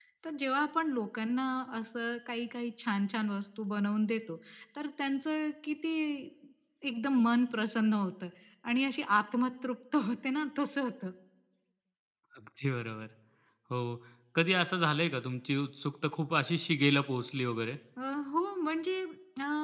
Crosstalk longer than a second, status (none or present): none